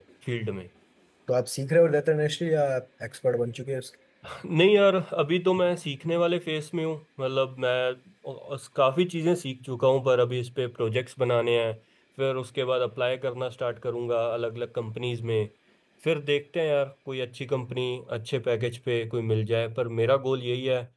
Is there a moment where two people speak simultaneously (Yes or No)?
No